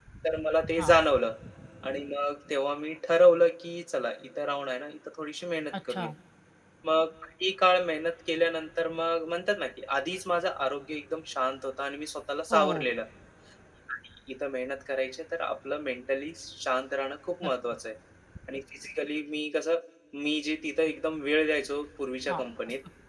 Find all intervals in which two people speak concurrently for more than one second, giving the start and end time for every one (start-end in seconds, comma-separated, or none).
none